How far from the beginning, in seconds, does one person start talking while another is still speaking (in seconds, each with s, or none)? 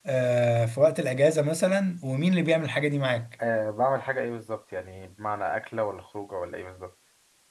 none